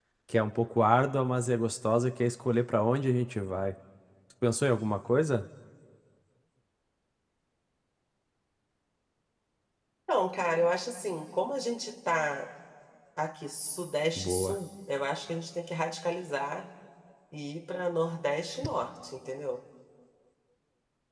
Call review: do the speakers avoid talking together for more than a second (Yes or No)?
Yes